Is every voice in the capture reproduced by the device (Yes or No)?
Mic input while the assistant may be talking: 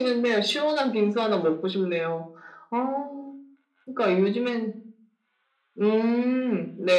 Yes